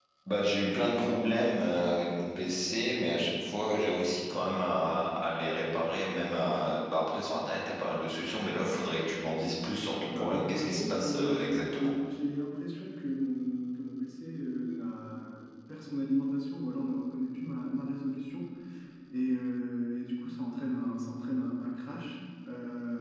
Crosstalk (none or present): present